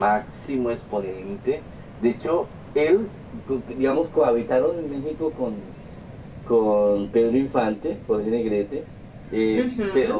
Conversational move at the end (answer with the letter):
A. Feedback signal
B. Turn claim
A